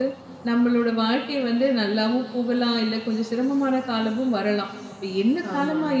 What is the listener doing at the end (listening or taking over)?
listening